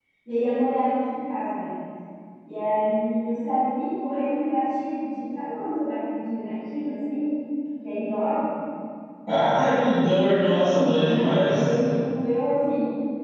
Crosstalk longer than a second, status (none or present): present